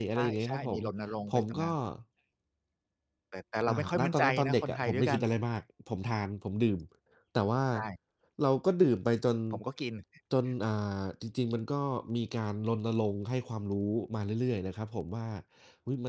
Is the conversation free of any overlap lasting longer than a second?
No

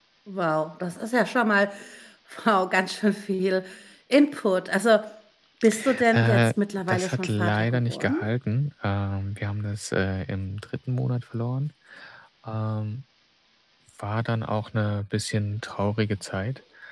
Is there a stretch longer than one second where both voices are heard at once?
Yes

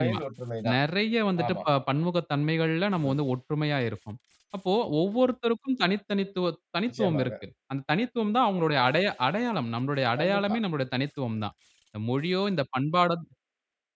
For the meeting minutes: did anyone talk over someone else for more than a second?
No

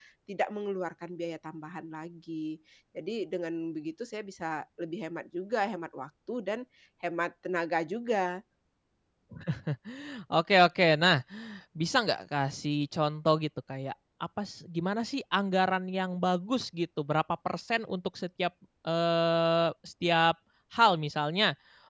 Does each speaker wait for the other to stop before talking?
Yes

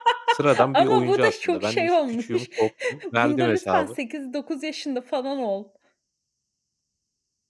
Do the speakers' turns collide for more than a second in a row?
Yes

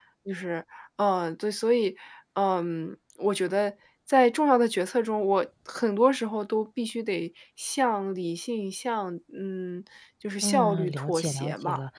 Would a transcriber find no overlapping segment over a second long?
No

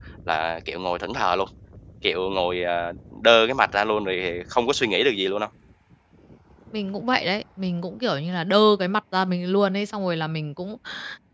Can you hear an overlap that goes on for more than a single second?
No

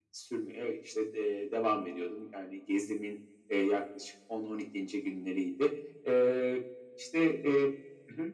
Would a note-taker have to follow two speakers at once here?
No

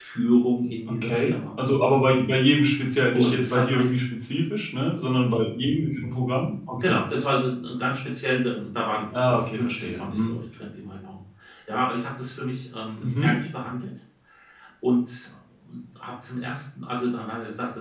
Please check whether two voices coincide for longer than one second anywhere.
Yes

